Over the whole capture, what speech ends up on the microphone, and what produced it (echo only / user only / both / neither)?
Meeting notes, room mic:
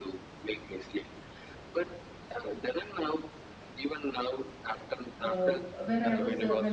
both